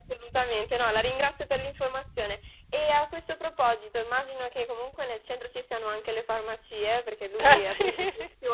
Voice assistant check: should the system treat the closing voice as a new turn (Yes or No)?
No